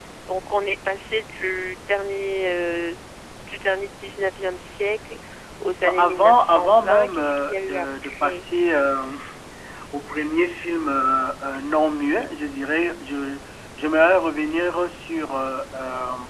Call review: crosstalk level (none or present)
present